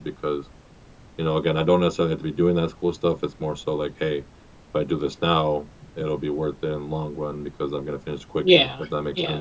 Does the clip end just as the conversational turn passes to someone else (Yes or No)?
Yes